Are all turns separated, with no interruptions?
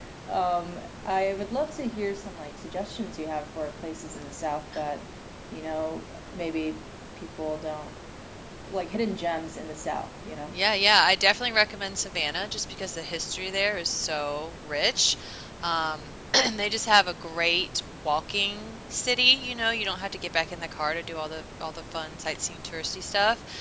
Yes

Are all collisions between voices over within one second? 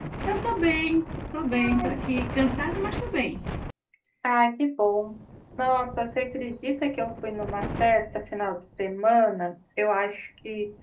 Yes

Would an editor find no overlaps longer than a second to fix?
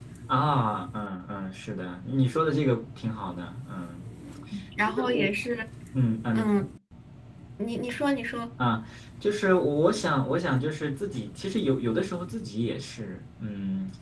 Yes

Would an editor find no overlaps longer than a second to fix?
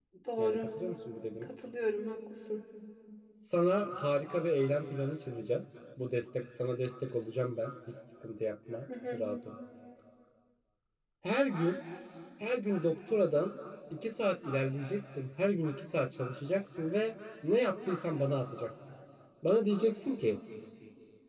Yes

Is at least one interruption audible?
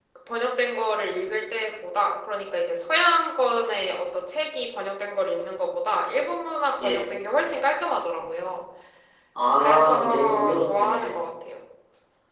Yes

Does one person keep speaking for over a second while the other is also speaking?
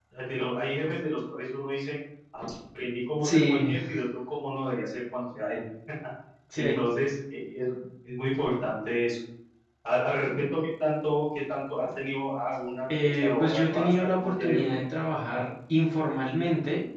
Yes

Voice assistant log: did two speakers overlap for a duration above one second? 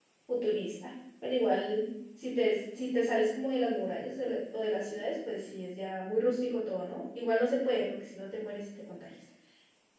No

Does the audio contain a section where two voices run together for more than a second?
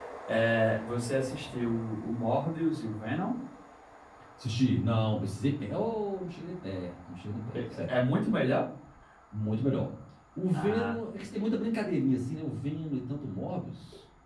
No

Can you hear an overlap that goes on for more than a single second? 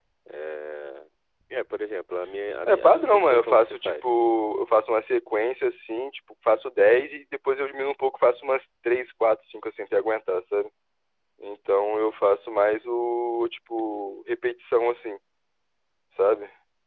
Yes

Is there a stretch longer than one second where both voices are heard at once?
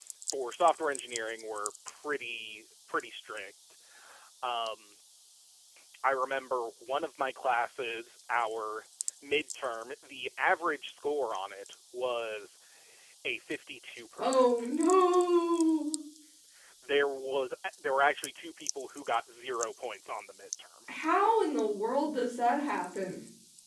No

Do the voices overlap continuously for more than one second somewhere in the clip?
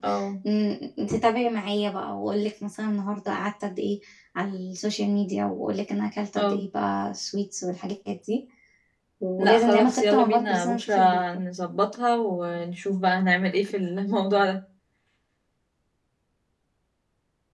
Yes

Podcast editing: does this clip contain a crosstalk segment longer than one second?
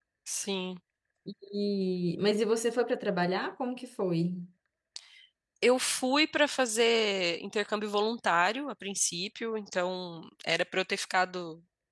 No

